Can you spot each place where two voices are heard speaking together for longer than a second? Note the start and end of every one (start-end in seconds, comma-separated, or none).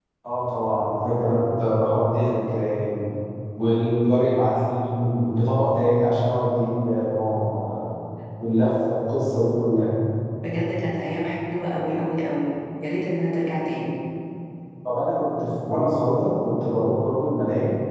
none